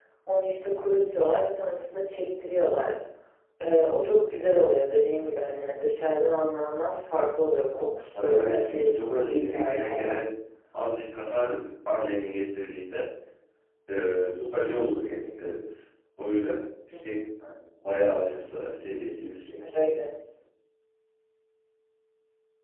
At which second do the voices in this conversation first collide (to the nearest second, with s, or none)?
8 s